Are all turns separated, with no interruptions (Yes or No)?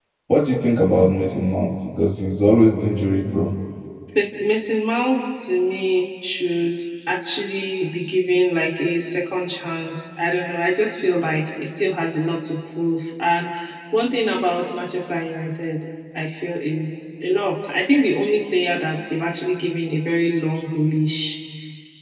Yes